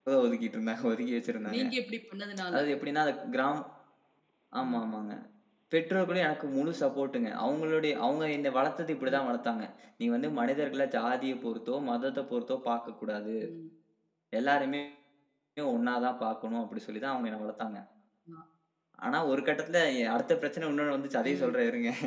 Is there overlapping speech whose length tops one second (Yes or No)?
No